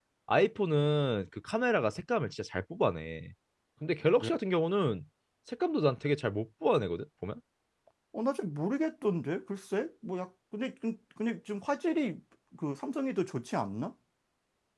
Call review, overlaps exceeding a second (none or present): none